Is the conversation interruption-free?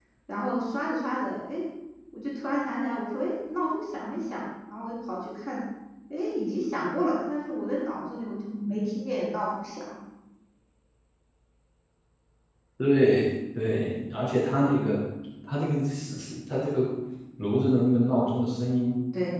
Yes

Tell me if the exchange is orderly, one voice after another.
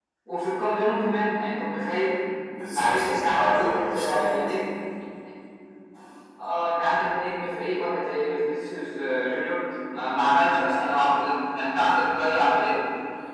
No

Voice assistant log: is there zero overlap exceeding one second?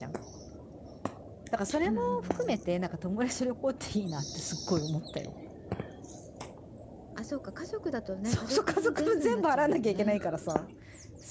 No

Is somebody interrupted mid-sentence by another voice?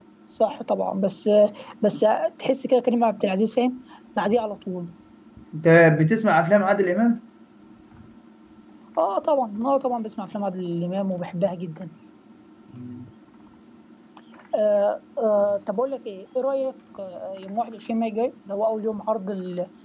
No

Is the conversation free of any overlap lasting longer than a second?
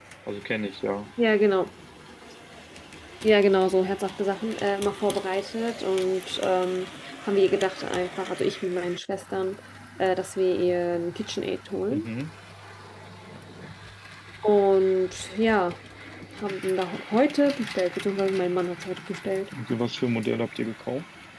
Yes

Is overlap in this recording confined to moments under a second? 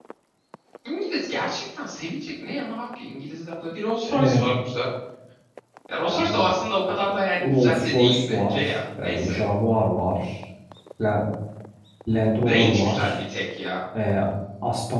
No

